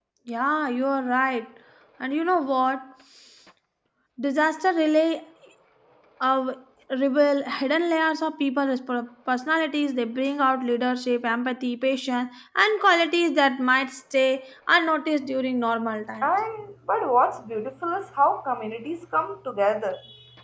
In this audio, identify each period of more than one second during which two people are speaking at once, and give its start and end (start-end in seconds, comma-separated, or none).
none